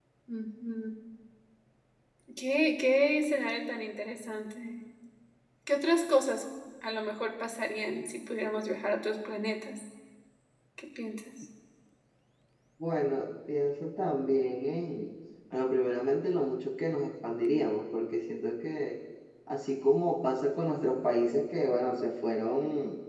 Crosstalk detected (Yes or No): No